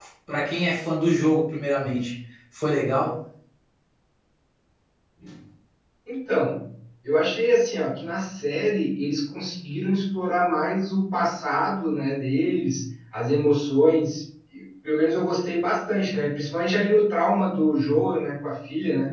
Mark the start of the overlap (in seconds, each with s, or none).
none